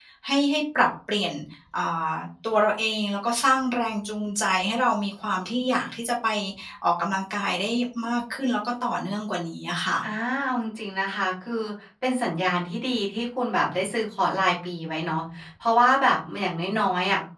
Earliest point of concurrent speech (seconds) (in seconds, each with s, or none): none